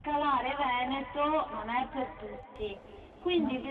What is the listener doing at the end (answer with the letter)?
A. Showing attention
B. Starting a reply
A